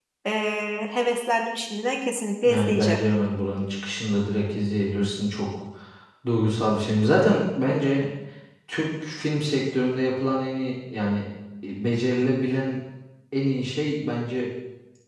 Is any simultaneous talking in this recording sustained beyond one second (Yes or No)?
No